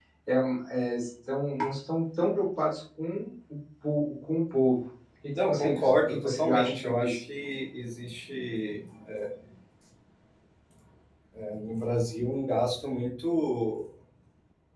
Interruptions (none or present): present